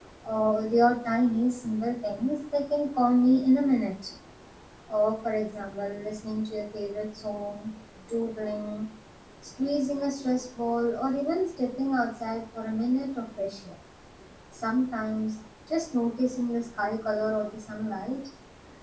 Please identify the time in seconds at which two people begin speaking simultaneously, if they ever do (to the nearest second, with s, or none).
none